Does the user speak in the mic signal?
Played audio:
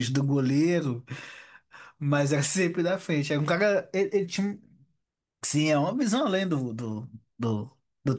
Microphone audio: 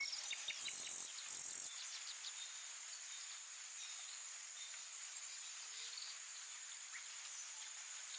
No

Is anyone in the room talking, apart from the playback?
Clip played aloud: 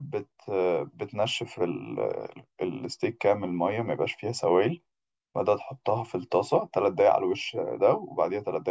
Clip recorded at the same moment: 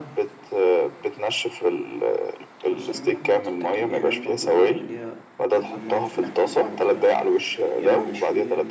Yes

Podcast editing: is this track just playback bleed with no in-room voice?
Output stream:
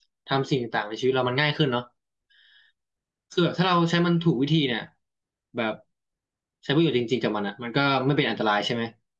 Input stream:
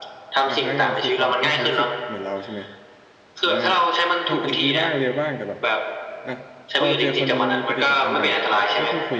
No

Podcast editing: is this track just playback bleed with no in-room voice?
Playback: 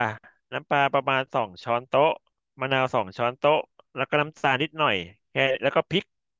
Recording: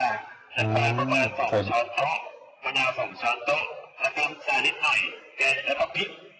No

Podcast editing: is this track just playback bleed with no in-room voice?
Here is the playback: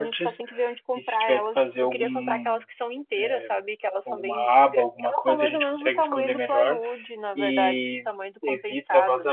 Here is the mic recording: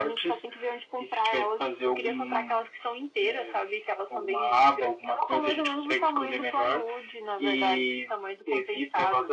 Yes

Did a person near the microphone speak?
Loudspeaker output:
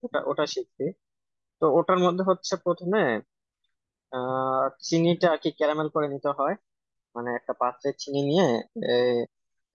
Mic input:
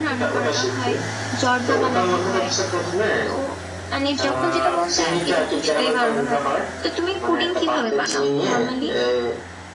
Yes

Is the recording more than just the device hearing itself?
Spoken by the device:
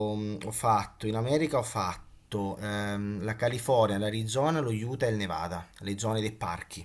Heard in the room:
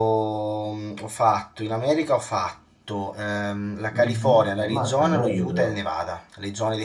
Yes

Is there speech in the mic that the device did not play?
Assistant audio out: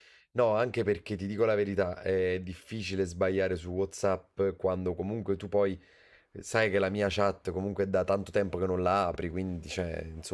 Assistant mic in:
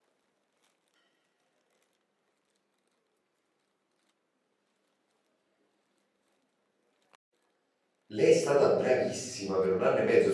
Yes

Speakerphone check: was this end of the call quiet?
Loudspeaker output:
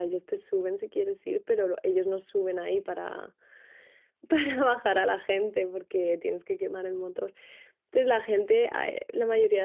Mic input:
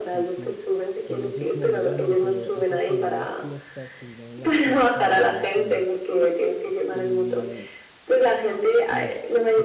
No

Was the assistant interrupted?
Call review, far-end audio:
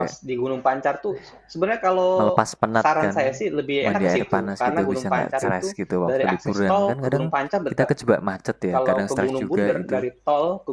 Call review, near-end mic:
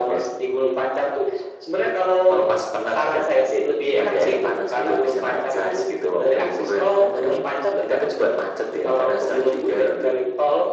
No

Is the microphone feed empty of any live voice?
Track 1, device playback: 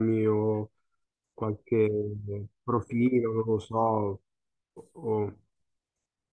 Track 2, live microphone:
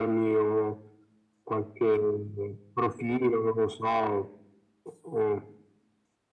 Yes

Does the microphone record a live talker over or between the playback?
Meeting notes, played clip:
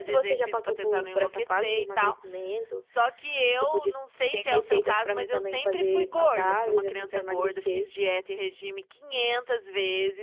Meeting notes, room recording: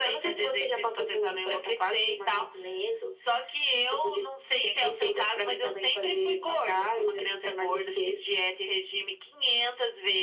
No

